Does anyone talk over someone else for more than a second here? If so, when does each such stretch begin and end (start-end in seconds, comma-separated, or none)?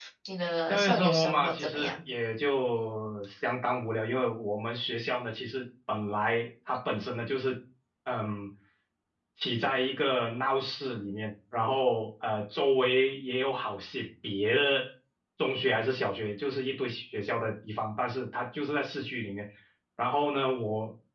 0.7-1.9